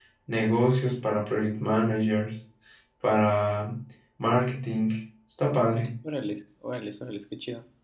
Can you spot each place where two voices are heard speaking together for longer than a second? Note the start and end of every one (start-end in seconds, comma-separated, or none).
none